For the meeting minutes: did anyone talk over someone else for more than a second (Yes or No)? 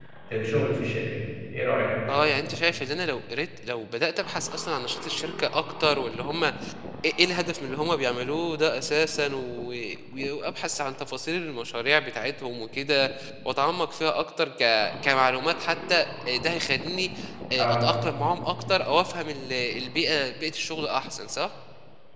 No